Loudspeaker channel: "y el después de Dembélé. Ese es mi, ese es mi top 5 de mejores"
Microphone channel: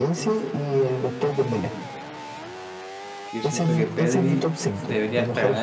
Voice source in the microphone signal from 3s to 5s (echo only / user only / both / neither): both